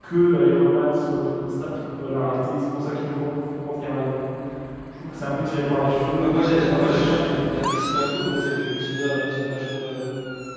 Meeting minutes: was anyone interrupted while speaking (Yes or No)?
Yes